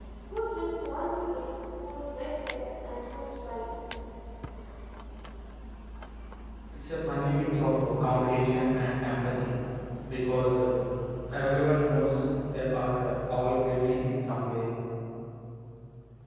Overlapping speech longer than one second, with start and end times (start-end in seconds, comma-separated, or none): none